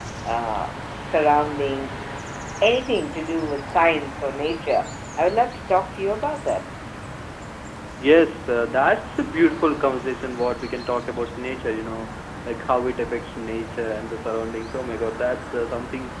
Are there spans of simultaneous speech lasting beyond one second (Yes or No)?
No